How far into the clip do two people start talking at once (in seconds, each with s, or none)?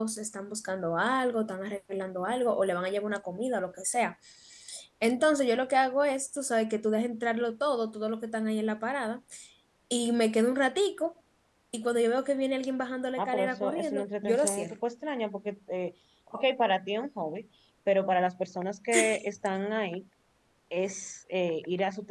13.2 s